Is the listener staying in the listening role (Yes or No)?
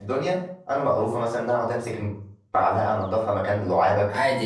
No